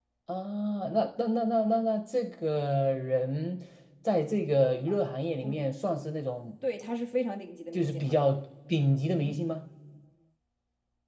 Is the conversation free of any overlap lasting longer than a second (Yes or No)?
Yes